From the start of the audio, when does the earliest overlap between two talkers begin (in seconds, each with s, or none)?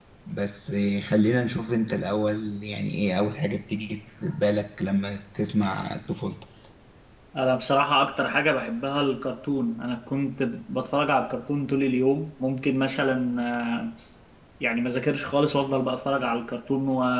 none